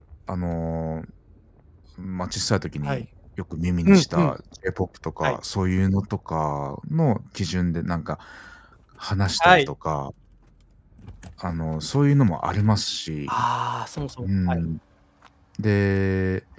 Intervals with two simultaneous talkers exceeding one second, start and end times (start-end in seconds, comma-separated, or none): none